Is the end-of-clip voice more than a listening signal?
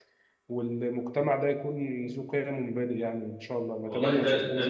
Yes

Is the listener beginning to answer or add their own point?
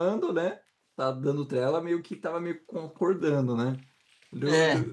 No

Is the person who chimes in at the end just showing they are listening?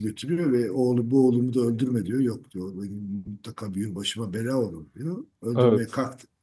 Yes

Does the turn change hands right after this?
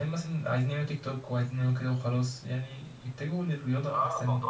Yes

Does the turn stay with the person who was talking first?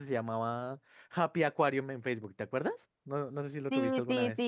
No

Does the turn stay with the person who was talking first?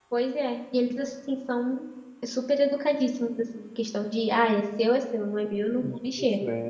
No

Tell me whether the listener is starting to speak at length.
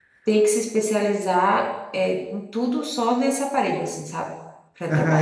Yes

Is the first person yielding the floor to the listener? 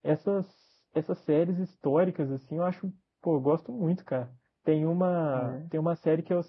No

